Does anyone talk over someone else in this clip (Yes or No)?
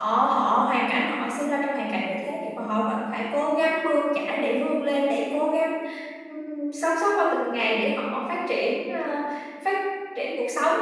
No